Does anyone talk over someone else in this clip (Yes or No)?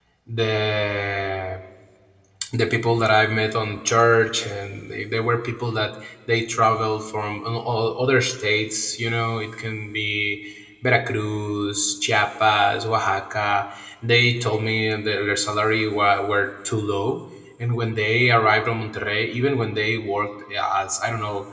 No